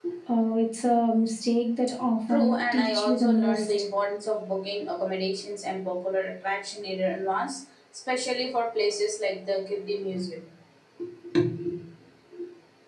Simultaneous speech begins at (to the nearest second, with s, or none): 2 s